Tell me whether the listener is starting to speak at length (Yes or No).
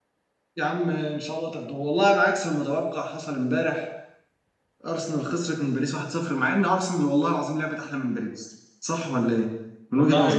Yes